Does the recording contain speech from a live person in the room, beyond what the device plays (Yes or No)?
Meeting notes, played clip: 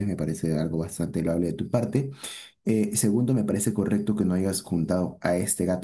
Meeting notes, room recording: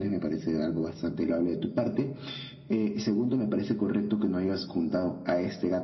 No